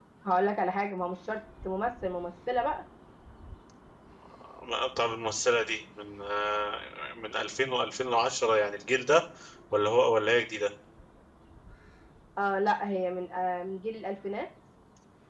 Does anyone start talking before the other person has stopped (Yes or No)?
No